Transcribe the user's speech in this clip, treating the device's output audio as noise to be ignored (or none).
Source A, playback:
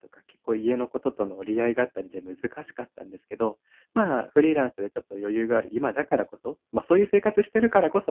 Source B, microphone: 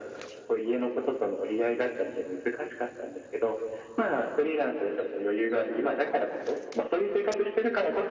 none